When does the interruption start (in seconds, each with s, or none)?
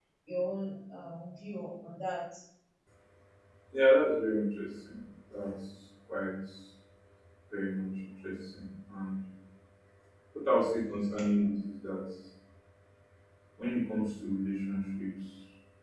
none